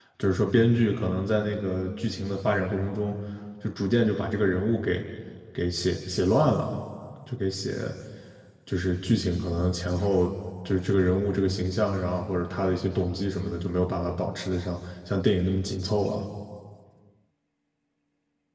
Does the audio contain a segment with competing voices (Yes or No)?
No